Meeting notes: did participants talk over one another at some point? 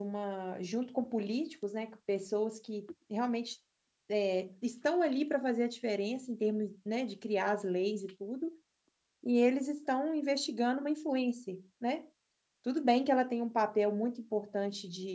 No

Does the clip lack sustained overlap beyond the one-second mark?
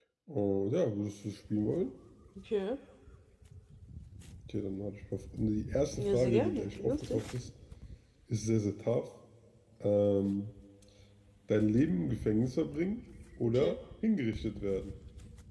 No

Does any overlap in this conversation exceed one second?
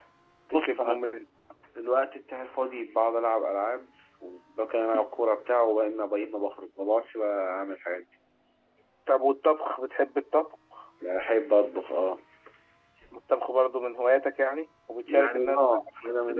Yes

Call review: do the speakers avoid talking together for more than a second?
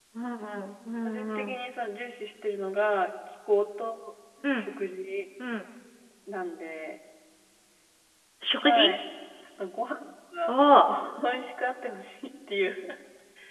Yes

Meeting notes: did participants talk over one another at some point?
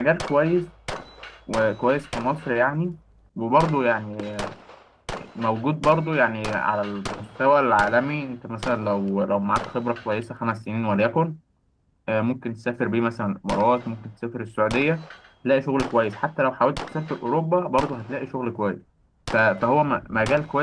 No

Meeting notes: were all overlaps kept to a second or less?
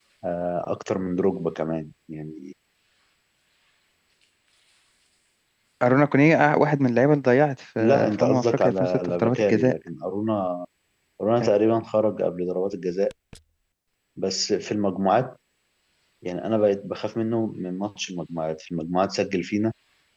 No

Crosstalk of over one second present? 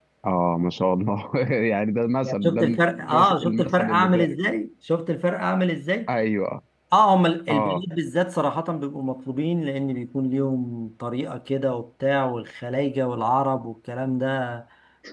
Yes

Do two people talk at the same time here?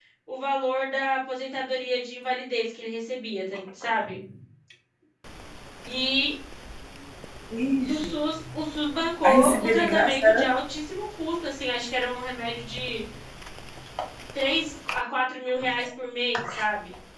Yes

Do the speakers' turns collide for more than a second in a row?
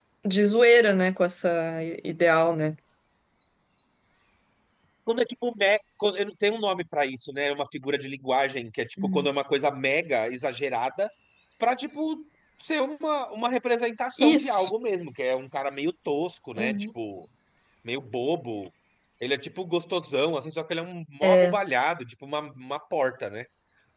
No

